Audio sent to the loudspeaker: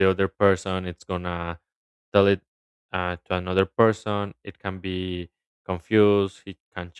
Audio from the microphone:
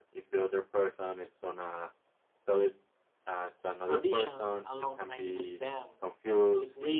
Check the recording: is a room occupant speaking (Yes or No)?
Yes